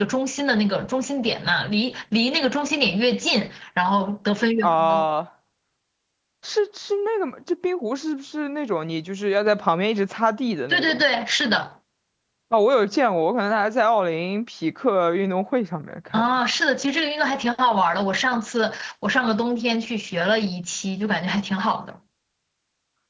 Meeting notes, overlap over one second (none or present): none